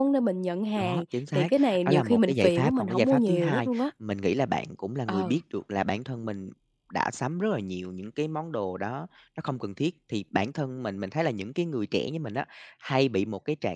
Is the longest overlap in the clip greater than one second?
Yes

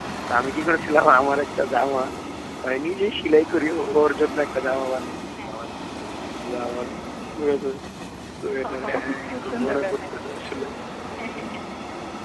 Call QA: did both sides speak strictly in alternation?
No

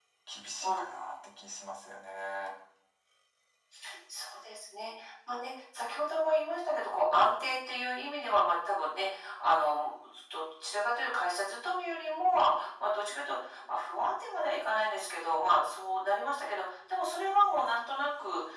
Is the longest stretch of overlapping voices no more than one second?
Yes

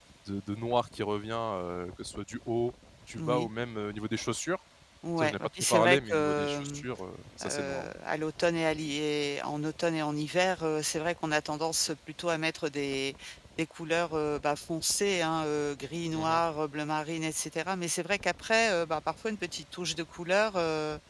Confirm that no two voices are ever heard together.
No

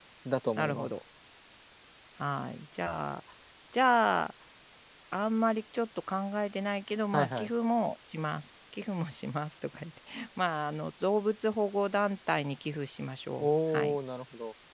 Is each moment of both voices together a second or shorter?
Yes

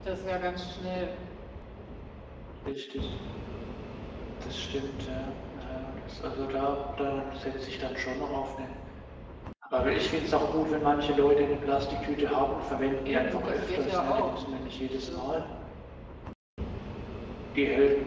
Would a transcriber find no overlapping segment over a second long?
No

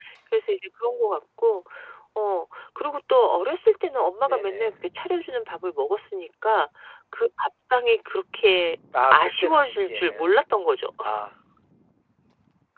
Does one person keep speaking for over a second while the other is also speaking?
Yes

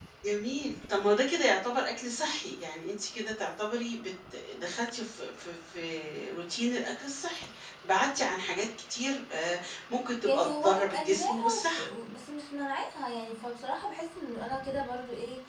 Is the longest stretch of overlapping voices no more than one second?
No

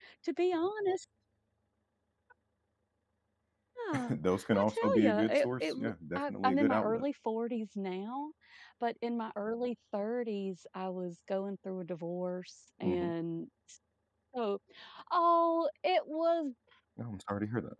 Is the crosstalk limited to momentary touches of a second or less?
No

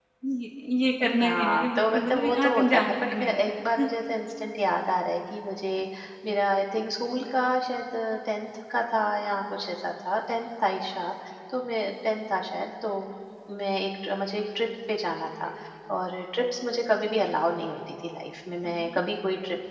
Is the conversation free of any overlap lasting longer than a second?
No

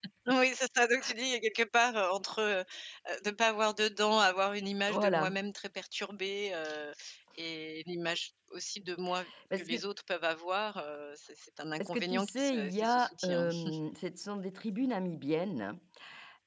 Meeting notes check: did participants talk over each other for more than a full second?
Yes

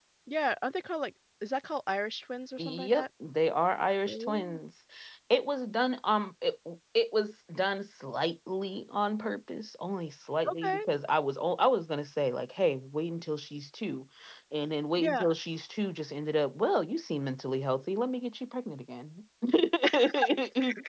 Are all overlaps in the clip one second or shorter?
Yes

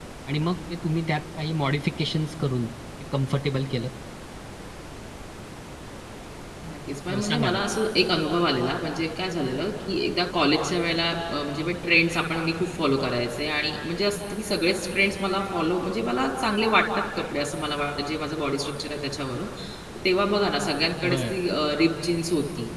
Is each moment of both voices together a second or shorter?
Yes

